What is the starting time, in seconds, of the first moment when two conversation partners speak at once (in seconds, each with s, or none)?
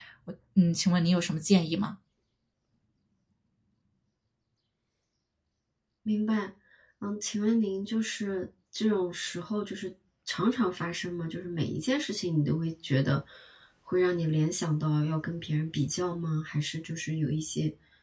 none